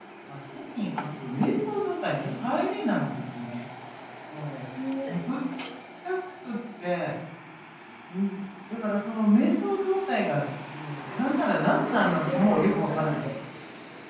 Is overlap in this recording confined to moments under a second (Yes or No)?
No